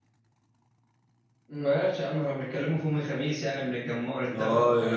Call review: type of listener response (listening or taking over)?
taking over